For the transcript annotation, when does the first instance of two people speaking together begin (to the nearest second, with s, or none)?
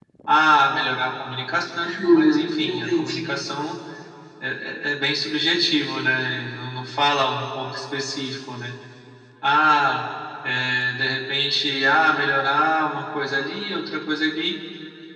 2 s